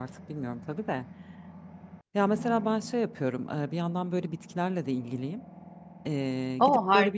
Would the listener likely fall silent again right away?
Yes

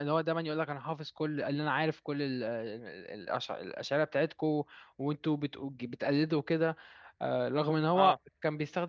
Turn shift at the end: No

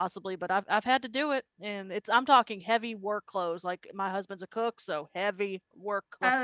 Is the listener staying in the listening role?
No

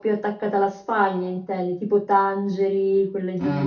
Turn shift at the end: Yes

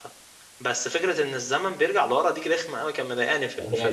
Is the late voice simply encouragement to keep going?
No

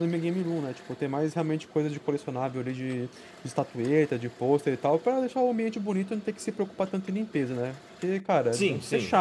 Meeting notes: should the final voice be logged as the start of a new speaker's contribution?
Yes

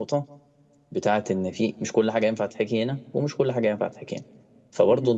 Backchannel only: Yes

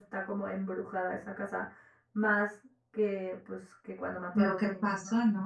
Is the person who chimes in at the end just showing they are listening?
No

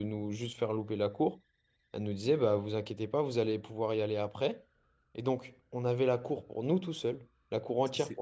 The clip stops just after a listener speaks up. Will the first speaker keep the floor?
Yes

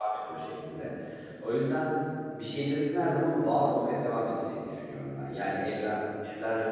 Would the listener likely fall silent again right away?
Yes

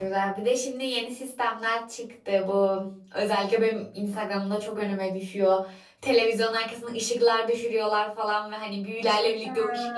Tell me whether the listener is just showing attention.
Yes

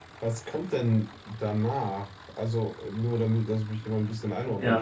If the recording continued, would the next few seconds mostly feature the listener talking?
Yes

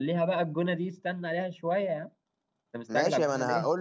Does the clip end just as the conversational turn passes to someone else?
Yes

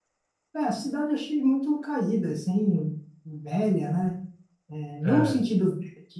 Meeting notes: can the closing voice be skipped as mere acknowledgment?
Yes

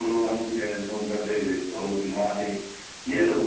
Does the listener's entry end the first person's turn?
No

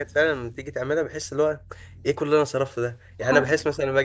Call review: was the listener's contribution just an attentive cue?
Yes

